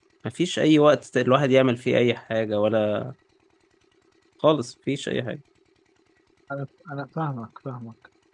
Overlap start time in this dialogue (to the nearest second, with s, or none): none